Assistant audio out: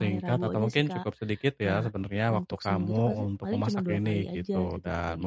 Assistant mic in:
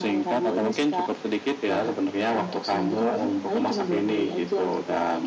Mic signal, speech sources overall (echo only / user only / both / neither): echo only